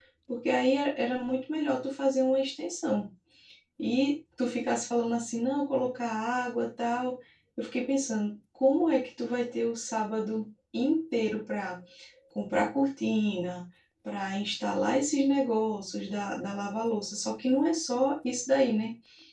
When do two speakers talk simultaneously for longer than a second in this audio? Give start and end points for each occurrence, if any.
none

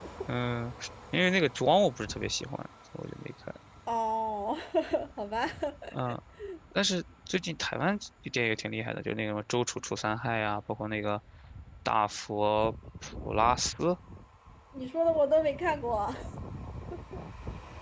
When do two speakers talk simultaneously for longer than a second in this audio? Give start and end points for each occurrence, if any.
none

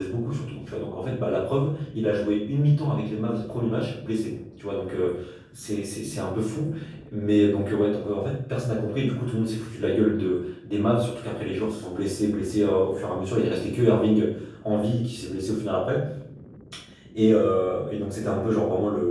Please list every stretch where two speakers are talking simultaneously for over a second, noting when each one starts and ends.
none

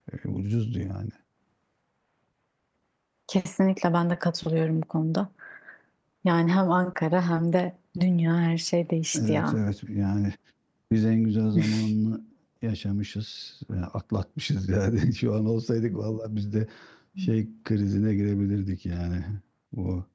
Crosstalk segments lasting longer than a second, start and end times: none

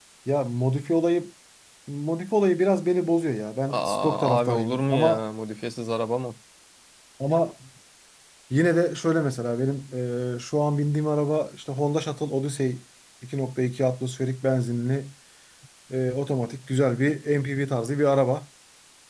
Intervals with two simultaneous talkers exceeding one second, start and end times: 3.7-5.2

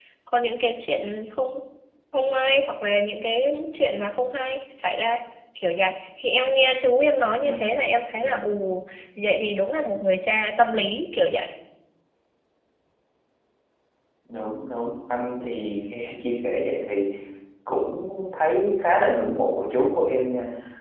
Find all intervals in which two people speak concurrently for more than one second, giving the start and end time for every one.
none

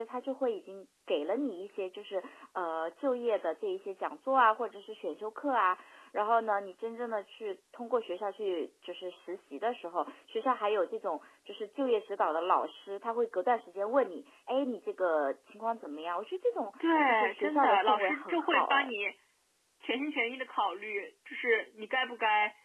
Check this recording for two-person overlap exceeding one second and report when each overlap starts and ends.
17.1-18.9

